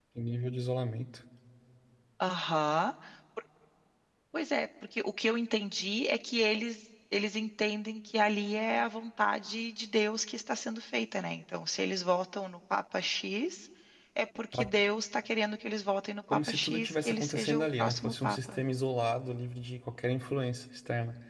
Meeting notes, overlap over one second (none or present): present